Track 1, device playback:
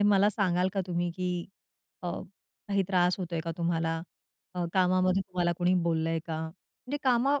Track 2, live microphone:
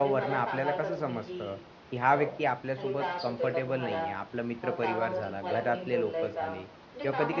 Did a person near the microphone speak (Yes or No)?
Yes